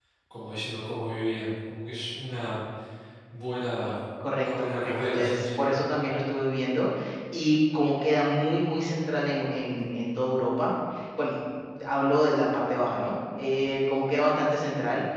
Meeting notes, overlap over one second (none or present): present